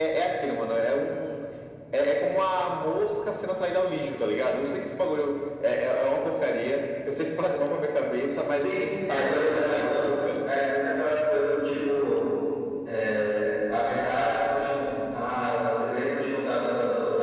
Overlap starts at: 8.6 s

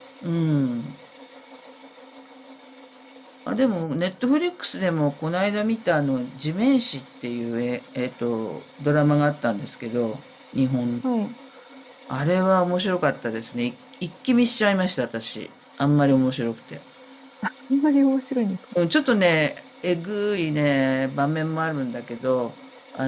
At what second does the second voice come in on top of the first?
none

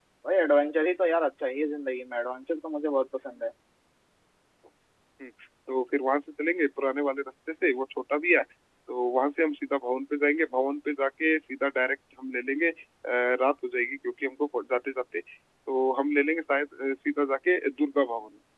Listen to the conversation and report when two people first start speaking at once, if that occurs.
none

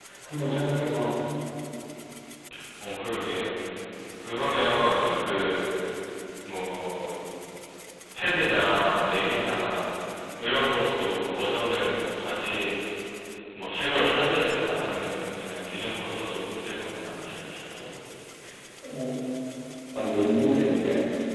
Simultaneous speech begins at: none

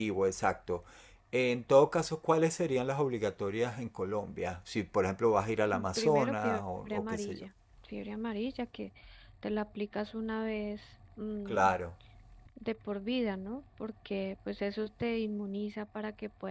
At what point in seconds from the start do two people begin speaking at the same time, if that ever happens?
5.7 s

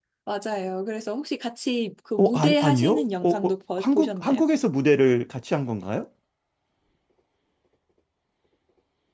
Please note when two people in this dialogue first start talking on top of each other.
2.2 s

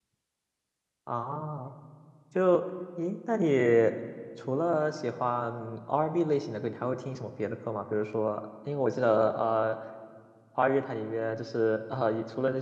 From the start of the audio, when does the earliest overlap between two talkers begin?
none

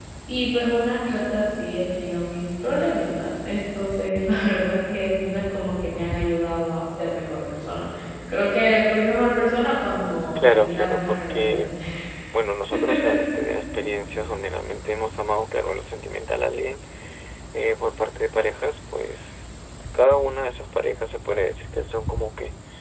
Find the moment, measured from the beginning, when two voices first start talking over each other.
10.3 s

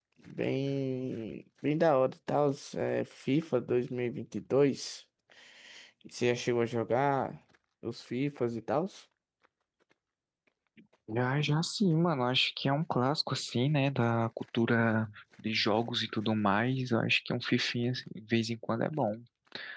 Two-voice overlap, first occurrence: none

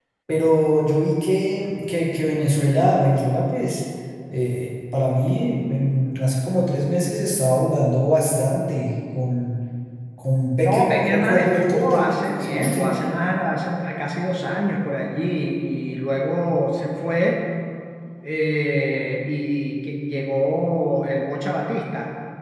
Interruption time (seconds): 10.6 s

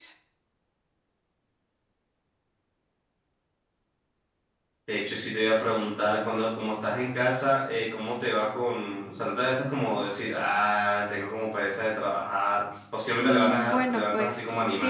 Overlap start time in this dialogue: 13.2 s

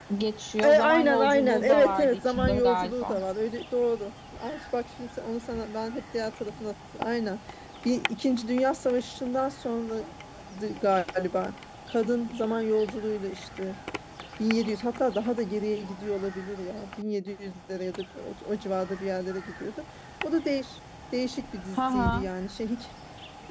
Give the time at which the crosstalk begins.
0.6 s

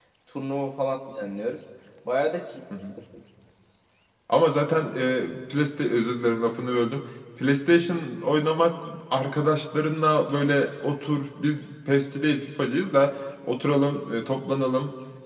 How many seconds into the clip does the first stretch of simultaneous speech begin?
none

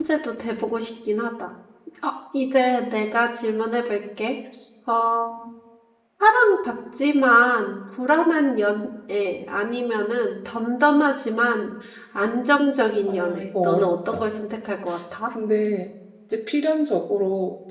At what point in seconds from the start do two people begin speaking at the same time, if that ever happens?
13.1 s

